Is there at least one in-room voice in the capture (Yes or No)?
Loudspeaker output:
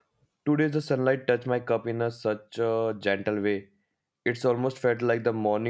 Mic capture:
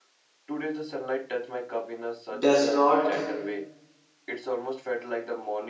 Yes